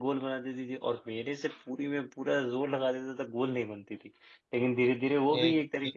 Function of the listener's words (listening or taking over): listening